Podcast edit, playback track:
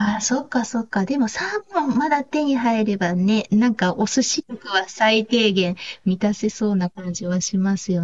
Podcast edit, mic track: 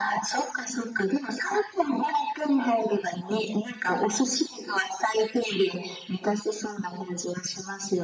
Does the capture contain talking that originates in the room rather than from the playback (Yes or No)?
No